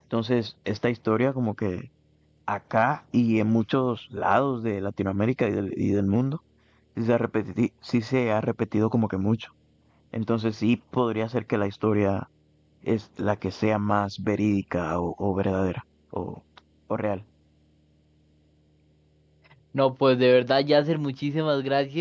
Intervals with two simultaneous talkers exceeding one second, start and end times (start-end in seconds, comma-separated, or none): none